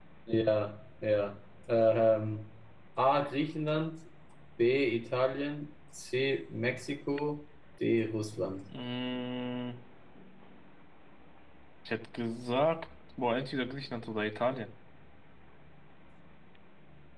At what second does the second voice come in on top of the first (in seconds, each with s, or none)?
none